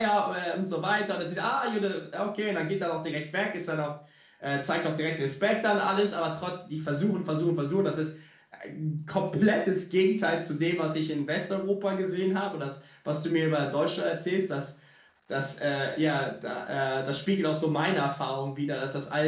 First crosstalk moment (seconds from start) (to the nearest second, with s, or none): none